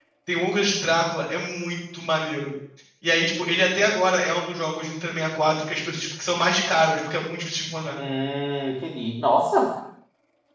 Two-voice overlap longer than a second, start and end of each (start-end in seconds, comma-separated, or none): none